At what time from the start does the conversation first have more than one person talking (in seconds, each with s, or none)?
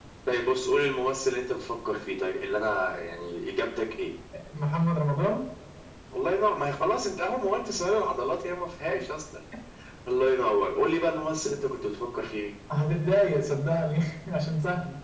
none